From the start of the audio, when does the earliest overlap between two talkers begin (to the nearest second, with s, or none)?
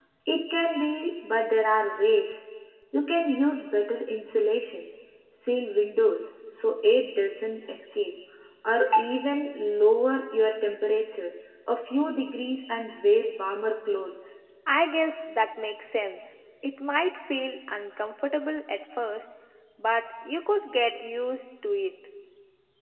none